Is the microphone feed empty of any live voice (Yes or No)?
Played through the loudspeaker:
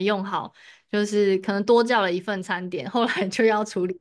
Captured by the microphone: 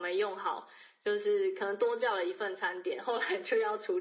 Yes